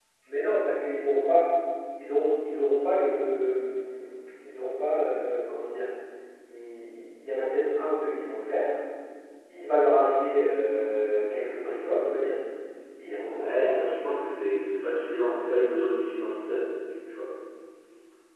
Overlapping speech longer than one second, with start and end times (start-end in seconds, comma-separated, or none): none